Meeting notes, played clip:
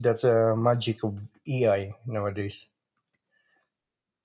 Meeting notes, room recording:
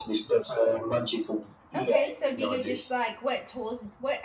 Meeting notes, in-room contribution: present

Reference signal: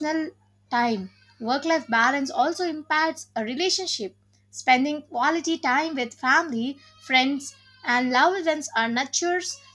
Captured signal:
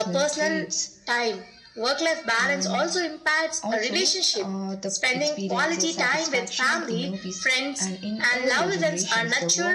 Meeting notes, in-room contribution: present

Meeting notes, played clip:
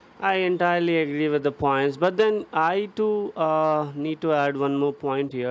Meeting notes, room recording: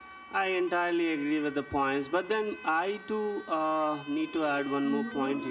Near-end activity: present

